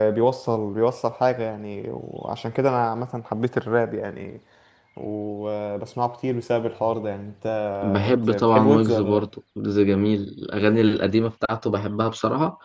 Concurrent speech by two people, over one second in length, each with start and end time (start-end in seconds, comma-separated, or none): 7.8-9.2